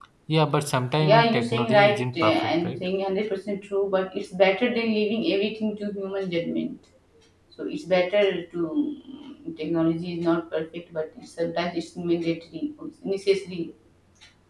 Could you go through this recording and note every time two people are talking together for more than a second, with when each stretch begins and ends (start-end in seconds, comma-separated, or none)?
1.0-2.8